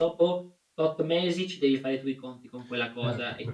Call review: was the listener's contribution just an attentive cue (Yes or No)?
No